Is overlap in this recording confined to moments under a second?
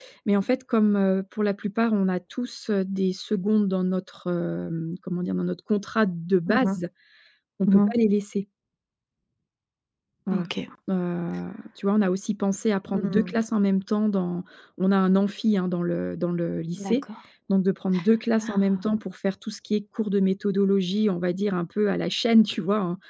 Yes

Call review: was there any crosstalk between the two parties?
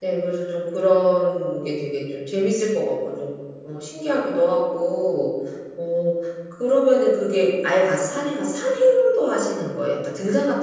No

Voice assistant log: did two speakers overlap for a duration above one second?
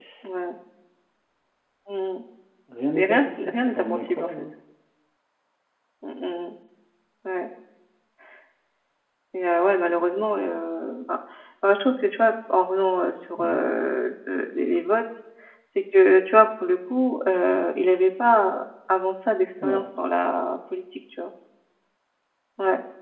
Yes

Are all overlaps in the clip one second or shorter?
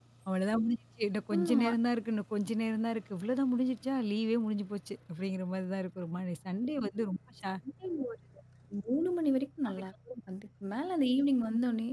Yes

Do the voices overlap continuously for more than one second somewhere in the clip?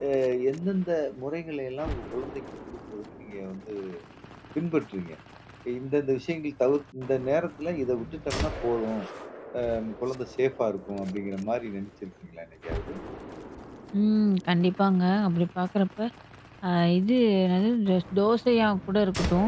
No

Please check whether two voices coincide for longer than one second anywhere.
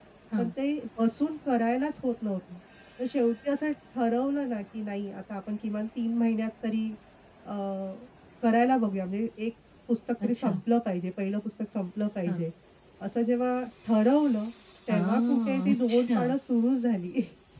Yes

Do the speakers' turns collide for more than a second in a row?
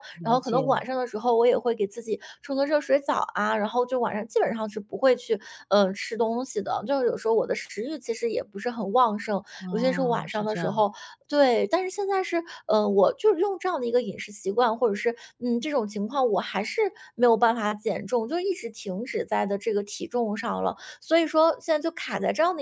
Yes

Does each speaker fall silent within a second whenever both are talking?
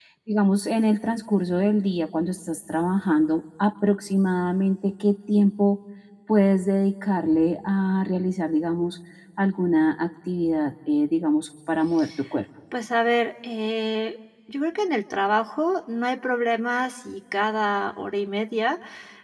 Yes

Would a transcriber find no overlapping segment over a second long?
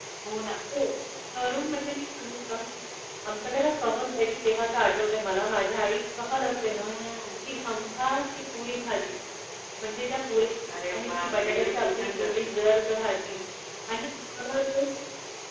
No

